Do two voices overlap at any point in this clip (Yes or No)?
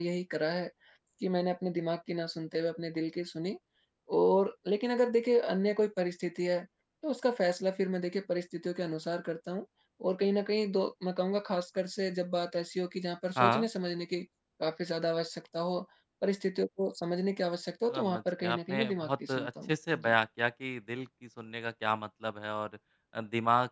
Yes